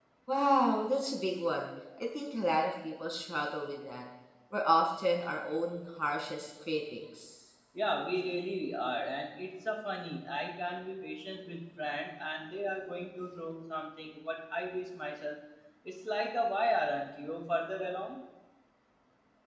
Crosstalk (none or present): none